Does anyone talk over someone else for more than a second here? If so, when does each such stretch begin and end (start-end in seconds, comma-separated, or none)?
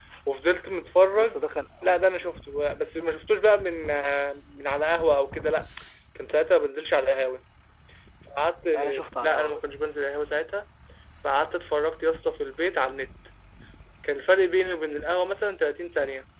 none